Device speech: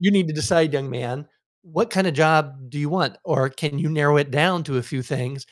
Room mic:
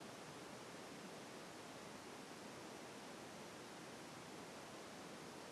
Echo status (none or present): none